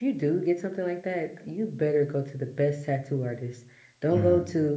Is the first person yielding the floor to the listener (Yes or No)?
No